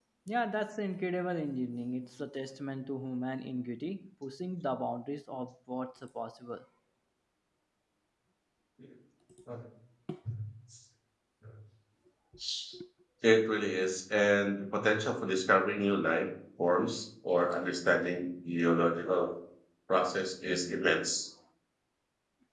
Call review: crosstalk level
none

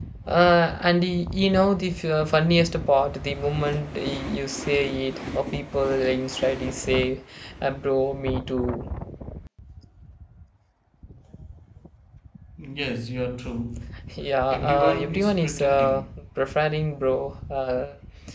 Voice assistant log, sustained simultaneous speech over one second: present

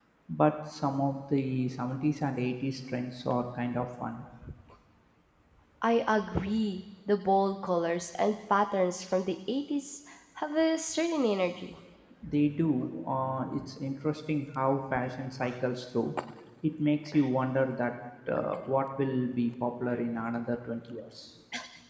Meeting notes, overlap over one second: none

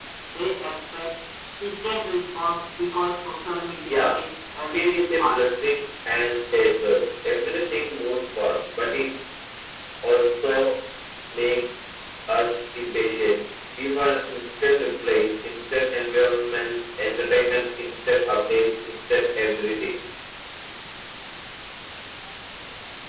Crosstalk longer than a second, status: present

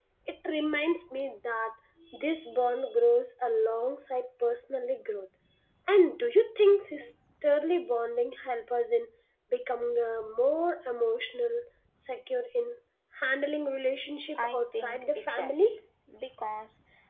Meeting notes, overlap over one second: present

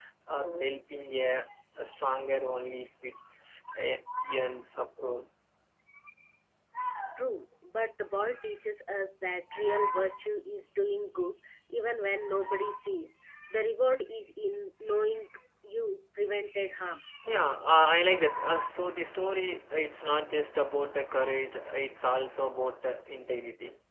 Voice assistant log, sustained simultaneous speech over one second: none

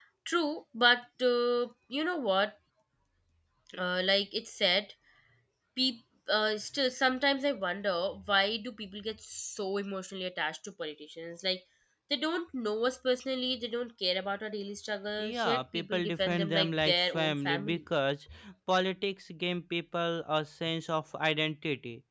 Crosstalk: present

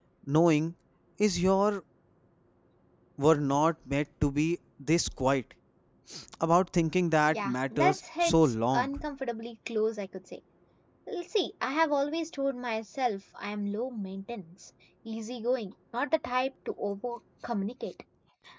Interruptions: present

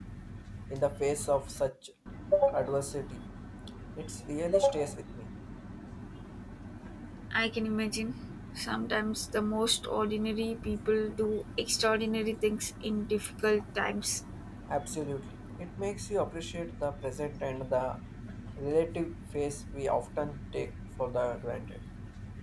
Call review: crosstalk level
none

